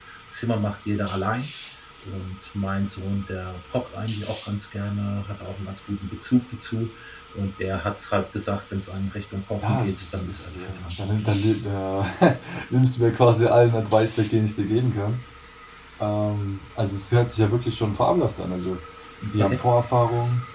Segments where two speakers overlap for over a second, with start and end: 9.6-11.4

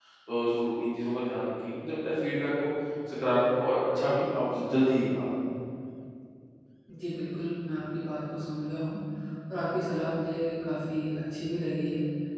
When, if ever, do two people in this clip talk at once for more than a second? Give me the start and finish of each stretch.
none

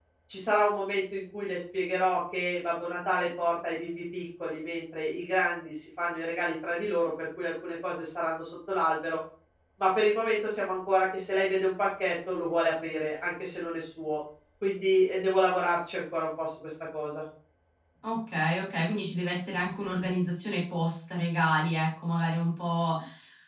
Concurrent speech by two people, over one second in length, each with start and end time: none

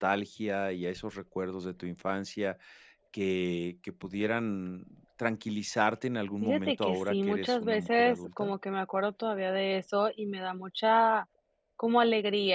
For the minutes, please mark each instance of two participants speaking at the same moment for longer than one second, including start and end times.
6.4-8.5

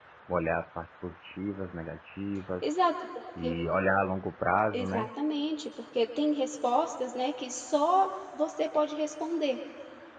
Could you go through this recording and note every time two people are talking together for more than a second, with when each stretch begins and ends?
none

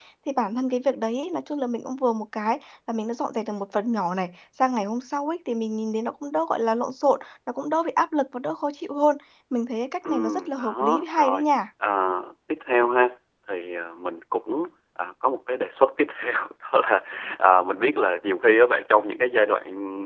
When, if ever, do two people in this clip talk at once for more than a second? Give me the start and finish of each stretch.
10.1-11.5

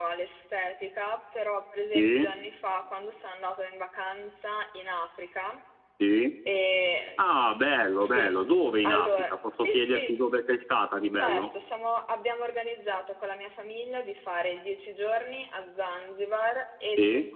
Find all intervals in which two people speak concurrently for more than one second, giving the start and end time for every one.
8.8-10.1

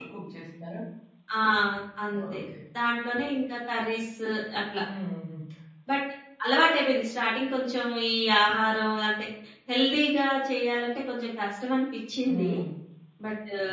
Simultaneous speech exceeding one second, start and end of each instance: none

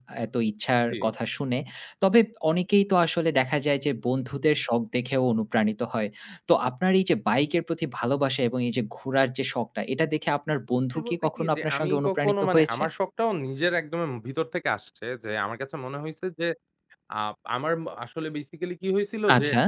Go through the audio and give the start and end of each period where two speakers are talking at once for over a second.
10.9-12.8

